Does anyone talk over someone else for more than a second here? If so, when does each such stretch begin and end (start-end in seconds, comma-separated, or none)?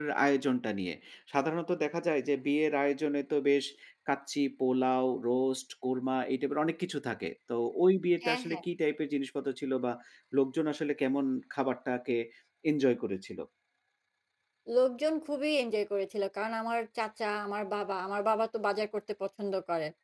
none